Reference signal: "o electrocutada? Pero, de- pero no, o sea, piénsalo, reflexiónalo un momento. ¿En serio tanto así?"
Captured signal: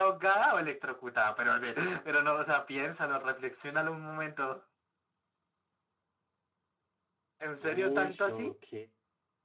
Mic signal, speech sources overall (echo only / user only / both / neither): both